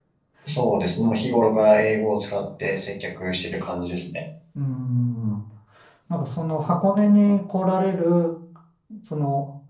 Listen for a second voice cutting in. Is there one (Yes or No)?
No